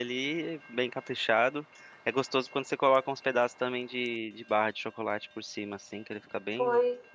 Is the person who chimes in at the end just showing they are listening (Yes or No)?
No